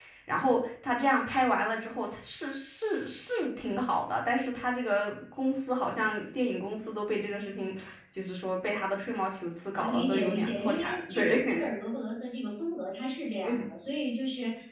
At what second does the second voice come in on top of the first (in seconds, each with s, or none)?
9.8 s